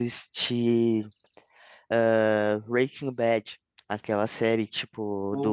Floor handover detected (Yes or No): No